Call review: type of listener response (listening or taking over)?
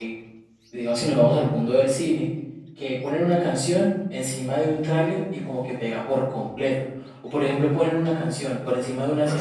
listening